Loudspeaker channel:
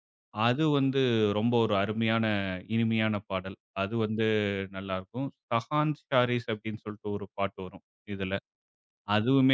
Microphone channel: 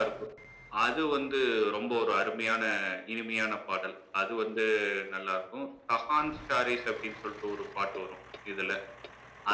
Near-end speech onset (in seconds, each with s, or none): none